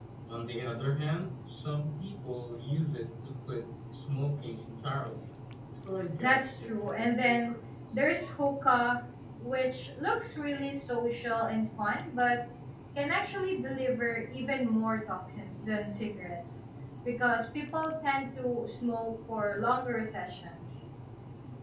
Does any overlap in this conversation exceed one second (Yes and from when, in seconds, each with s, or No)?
Yes, from 6.2 s